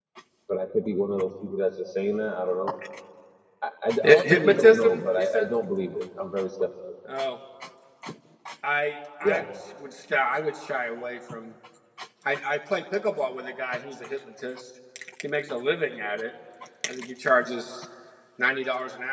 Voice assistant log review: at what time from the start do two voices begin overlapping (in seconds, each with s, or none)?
4.2 s